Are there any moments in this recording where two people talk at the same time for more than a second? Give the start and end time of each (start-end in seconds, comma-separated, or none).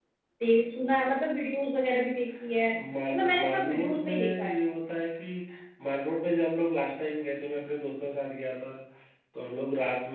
3.1-4.6